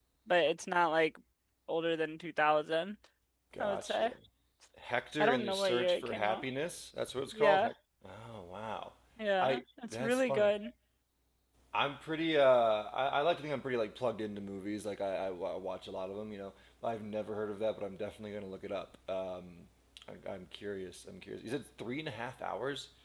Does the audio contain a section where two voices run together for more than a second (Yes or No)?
Yes